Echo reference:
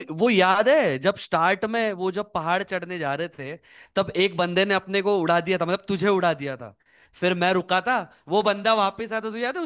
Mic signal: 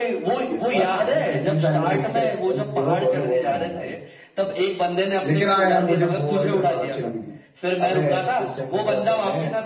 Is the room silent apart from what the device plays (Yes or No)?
No